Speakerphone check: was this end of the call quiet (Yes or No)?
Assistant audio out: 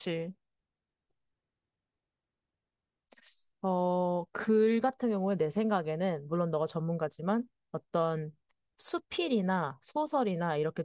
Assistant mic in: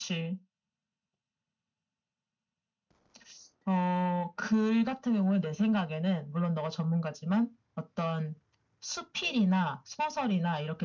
Yes